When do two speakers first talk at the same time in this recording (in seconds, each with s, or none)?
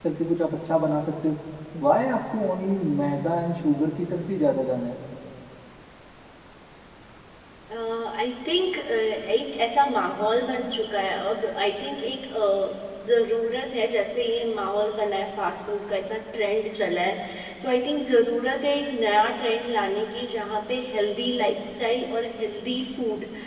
none